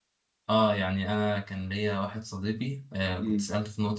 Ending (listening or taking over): listening